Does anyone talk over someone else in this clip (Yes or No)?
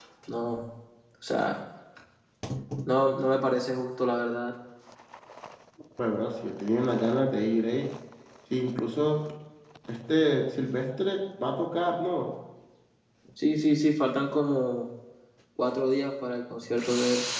No